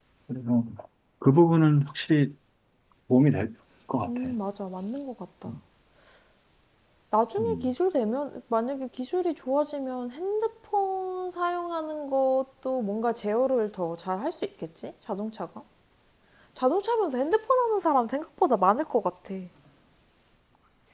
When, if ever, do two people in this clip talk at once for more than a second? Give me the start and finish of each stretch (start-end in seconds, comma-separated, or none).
none